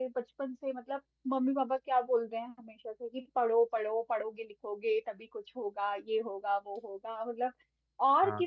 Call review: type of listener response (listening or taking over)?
listening